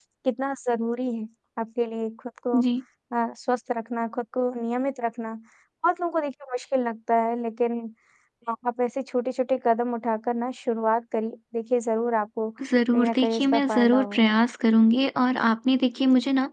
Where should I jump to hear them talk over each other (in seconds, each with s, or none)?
12.9 s